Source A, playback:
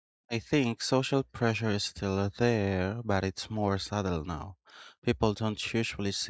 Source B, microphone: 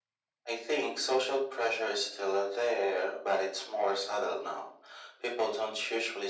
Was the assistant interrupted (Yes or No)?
No